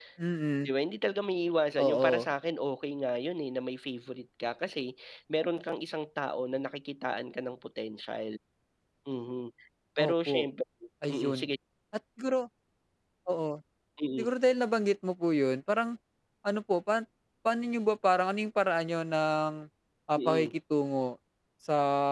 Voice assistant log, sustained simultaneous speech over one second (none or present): none